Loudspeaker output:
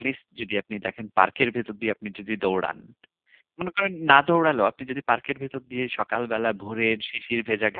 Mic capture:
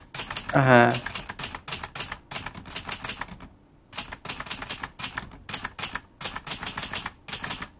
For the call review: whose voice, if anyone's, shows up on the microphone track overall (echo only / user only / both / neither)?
user only